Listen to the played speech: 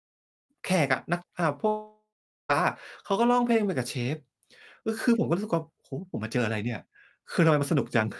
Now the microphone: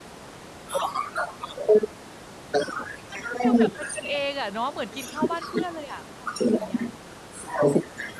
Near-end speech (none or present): present